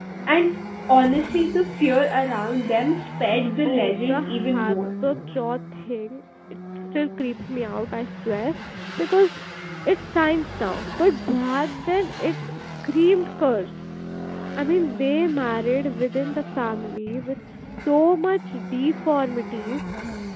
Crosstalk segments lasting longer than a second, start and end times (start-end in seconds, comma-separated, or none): 3.6-4.8